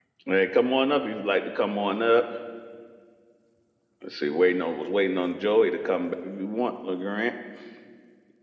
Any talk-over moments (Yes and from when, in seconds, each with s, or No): No